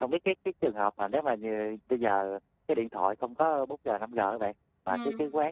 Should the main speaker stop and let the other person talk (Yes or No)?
No